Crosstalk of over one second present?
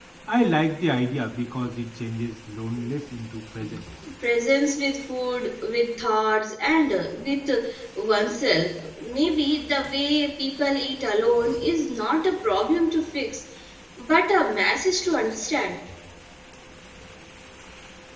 No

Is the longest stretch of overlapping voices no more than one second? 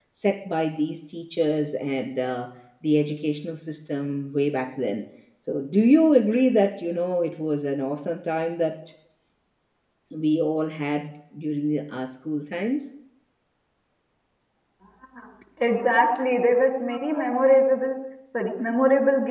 Yes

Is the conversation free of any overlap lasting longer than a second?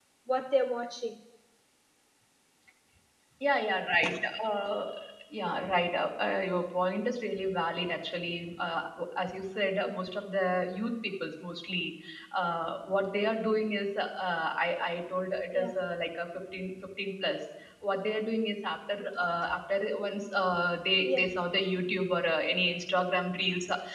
Yes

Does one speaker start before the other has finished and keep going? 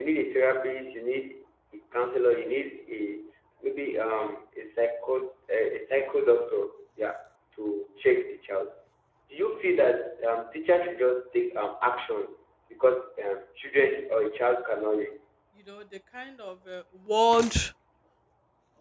No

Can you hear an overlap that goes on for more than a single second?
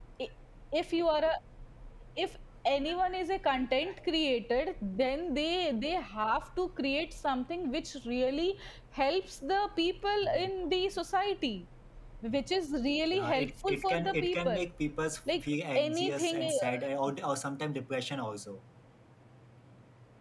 Yes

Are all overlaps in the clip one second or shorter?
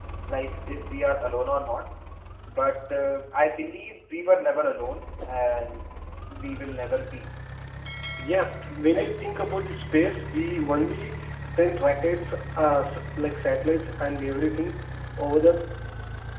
Yes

